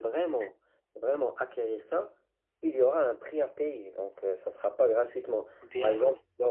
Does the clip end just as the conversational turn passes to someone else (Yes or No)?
No